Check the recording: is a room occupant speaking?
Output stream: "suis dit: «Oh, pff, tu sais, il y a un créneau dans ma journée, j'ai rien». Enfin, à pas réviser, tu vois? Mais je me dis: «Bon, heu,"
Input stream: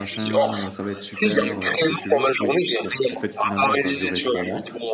Yes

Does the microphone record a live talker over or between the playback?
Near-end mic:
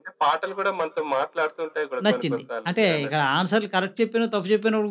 Yes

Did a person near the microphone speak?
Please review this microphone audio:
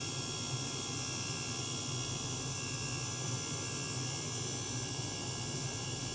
No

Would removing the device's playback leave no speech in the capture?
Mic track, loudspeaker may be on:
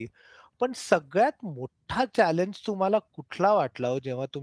No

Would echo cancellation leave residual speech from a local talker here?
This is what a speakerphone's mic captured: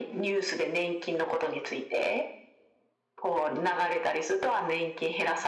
No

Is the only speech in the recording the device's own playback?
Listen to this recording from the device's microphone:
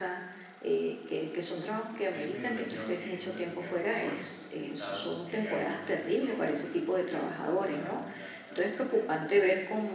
No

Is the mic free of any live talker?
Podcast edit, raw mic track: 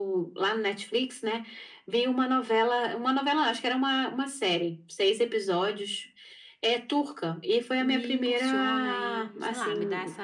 No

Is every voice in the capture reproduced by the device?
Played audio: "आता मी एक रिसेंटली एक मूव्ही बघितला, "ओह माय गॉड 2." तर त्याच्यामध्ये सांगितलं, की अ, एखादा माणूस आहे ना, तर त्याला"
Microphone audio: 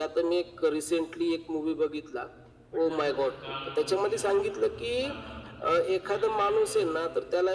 No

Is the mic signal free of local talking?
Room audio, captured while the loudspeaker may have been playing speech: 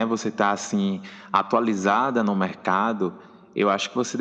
Yes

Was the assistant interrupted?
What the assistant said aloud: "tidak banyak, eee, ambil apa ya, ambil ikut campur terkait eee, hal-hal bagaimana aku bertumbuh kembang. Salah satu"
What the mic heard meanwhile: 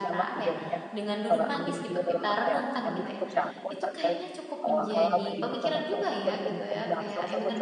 Yes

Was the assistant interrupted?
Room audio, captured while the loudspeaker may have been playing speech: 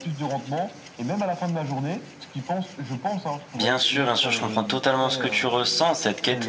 Yes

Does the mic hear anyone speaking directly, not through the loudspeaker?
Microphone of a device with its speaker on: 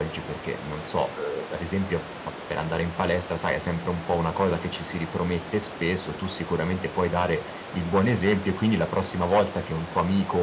Yes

